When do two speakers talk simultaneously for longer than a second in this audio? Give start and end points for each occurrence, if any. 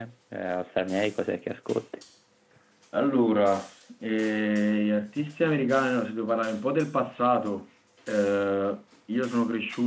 none

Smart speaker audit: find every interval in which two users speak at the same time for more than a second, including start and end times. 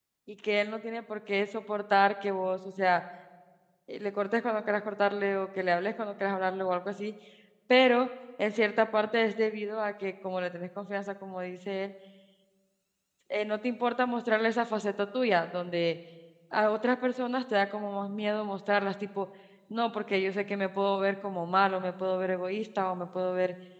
none

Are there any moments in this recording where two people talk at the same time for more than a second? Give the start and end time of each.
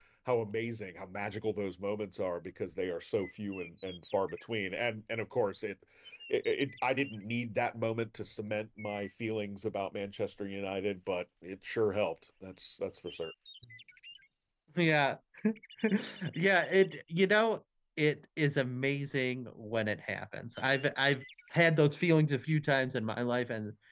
none

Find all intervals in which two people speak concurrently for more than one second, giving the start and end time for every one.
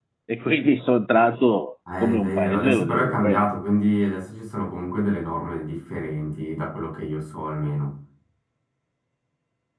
2.0-3.4

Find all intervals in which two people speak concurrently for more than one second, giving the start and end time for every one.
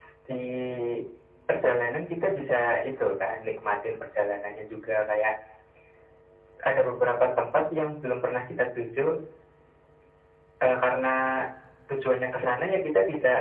none

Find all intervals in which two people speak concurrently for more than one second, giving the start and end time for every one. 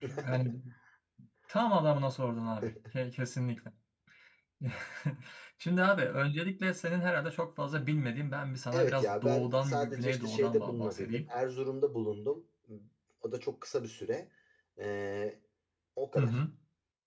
8.7-11.2

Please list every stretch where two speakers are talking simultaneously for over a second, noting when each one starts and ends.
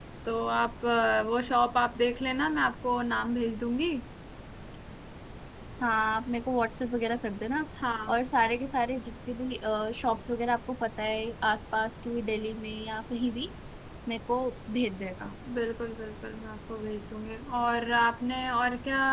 none

